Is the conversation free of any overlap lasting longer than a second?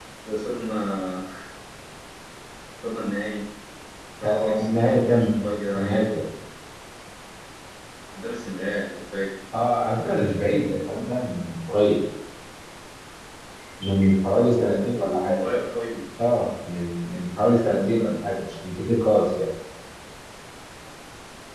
No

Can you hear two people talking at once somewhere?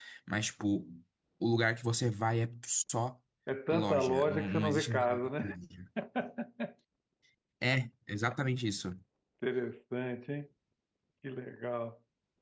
Yes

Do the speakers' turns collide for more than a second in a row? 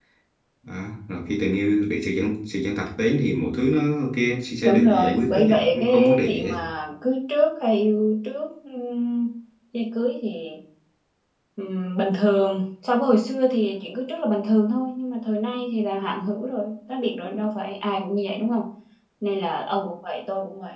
Yes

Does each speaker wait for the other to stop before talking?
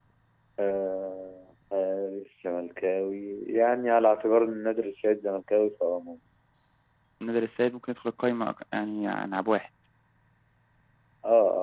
Yes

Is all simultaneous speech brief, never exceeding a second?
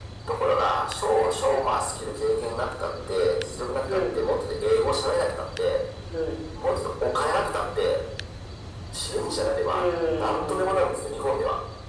No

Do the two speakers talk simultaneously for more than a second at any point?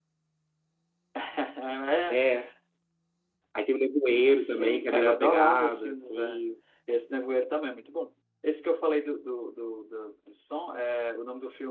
Yes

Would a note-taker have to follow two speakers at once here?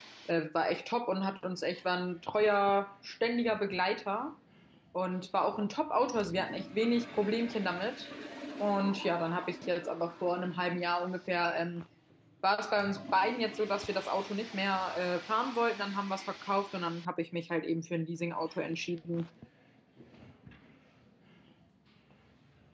No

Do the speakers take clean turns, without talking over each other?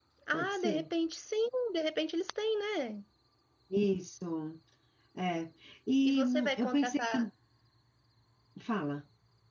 No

